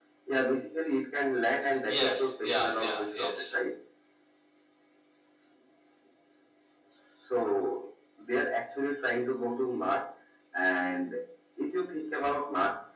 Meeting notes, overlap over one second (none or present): present